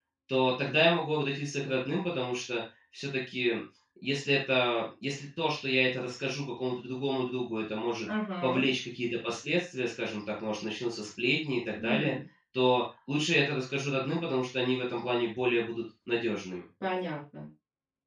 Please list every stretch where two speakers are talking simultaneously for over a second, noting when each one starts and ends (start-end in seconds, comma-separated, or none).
none